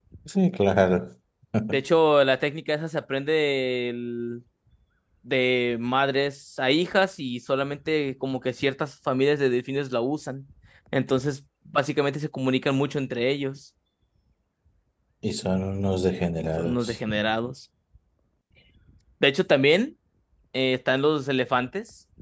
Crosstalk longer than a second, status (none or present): none